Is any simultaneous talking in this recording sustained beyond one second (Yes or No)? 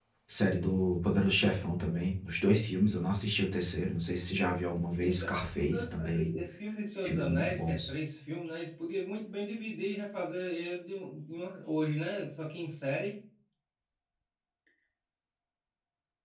Yes